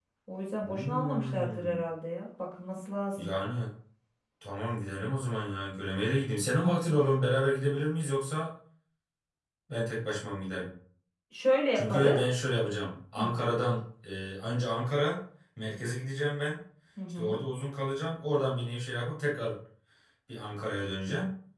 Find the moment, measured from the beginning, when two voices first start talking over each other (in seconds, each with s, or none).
0.6 s